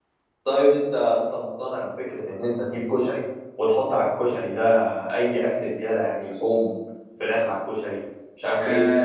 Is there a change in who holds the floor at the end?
Yes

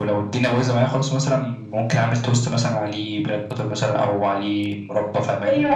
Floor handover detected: Yes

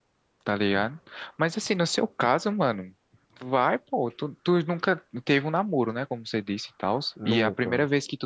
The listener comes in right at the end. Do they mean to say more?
No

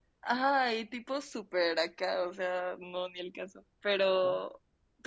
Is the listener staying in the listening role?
Yes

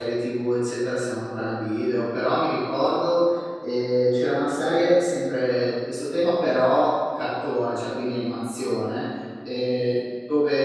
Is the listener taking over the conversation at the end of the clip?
No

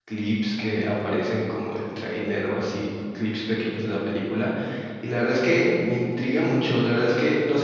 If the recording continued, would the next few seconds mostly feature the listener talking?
No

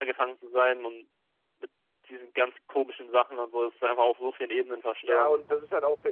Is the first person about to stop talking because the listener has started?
Yes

